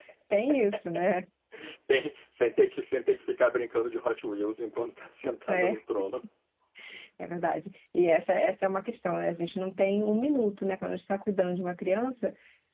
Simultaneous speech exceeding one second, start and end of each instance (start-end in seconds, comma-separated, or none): none